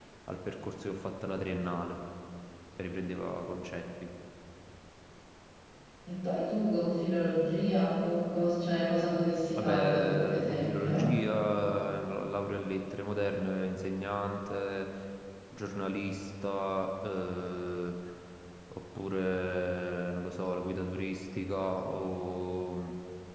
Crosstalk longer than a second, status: present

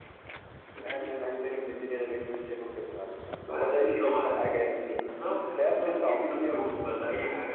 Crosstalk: present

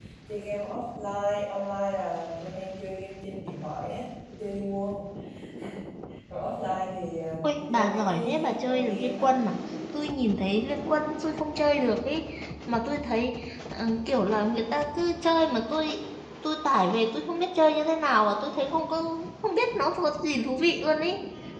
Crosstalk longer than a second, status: present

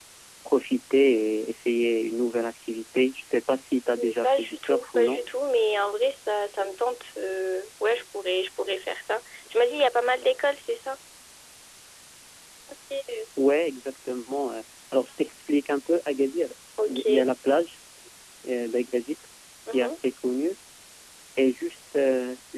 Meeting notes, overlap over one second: present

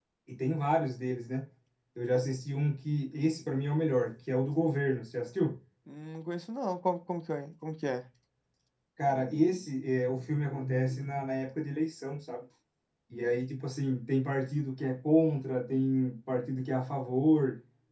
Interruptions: none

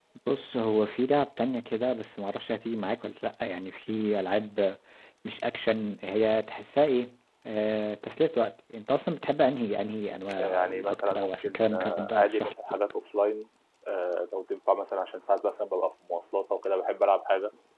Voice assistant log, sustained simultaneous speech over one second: present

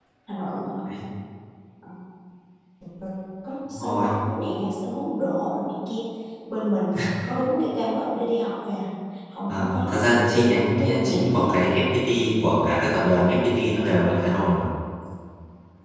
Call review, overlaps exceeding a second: present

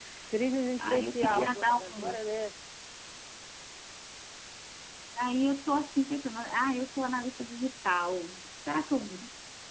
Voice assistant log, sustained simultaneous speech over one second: present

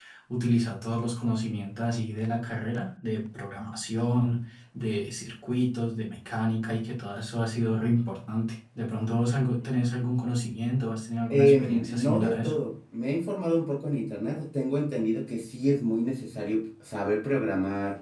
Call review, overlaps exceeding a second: present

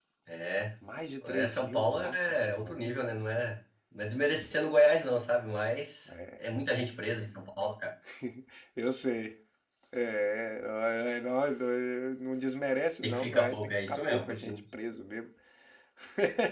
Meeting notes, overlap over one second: present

